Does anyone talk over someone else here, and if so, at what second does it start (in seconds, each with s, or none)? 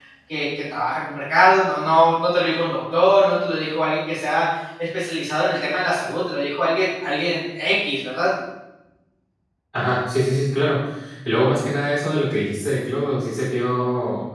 none